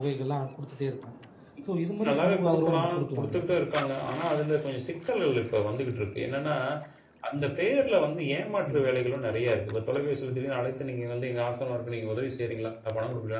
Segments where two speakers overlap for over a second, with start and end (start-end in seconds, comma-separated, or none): 2.1-3.4